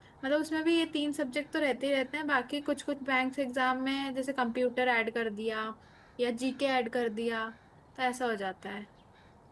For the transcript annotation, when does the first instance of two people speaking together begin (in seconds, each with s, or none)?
none